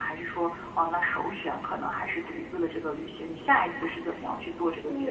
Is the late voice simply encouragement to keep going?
No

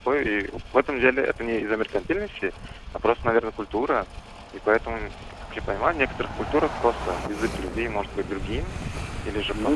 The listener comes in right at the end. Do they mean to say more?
No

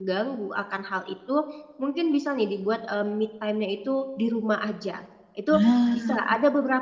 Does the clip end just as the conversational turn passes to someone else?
No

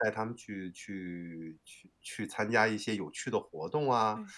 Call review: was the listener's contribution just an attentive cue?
Yes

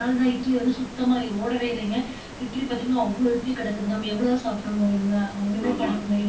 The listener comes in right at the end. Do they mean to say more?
No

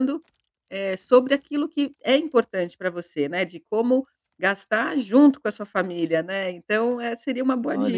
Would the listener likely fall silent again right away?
No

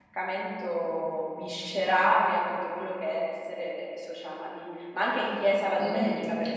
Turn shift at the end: Yes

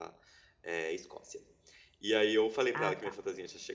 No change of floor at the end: Yes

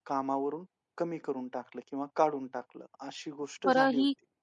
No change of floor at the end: No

